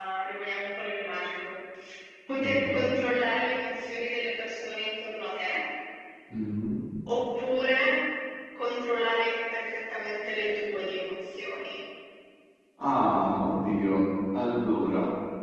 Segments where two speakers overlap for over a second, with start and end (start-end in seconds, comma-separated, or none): none